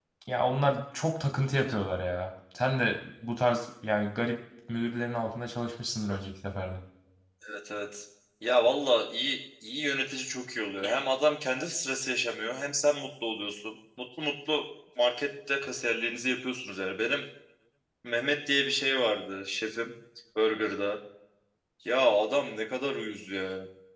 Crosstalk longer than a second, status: none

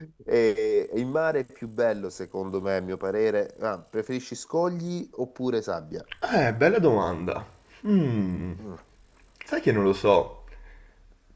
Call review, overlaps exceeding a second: none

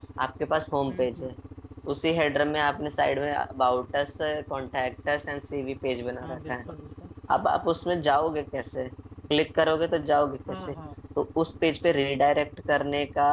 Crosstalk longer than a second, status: none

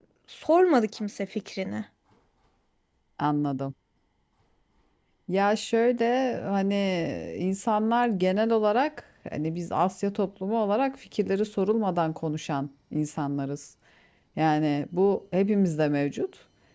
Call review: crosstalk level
none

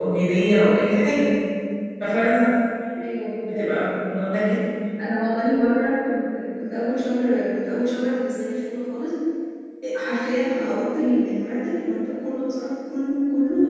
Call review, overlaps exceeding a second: none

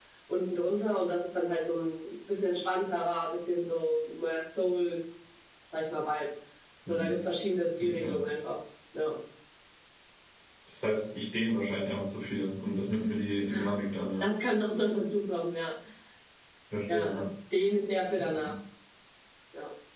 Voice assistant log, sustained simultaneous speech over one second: none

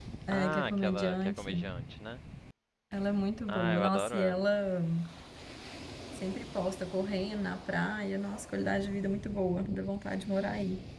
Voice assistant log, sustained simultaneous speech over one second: present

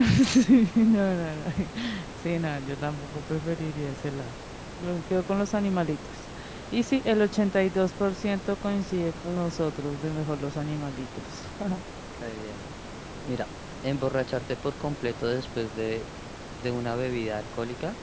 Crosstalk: none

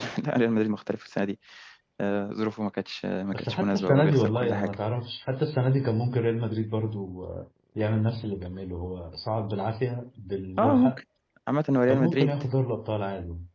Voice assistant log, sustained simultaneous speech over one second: present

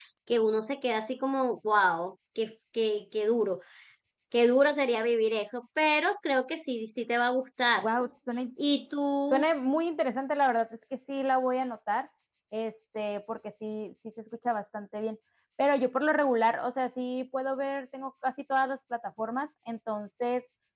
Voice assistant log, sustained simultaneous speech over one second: none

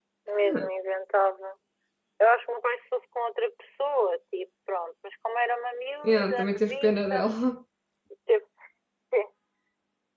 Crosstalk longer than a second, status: present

